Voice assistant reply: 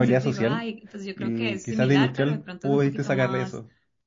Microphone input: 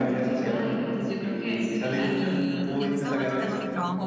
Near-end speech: present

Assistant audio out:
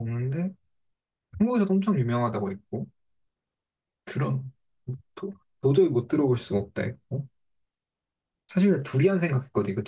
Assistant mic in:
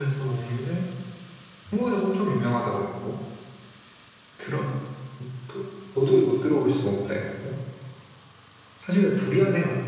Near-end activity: none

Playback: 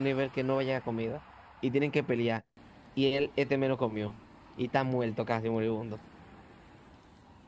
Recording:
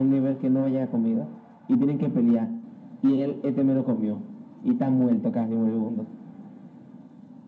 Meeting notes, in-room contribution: none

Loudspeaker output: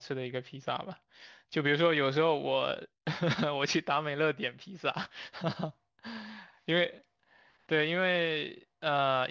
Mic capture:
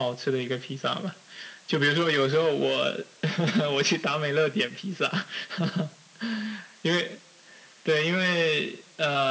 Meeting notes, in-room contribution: none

